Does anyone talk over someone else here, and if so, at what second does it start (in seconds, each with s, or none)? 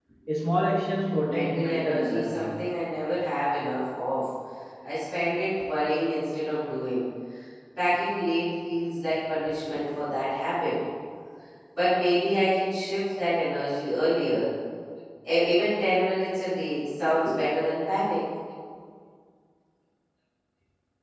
1.3 s